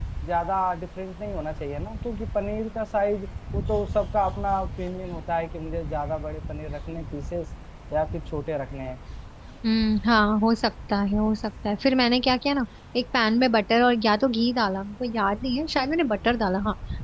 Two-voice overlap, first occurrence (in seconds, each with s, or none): none